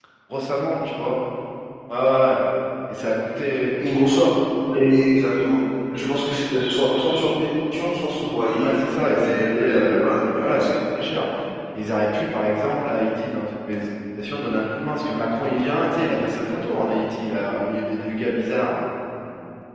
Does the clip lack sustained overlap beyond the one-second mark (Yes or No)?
No